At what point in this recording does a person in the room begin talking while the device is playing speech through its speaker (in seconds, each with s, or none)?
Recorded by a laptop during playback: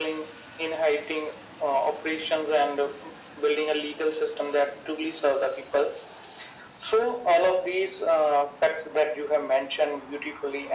none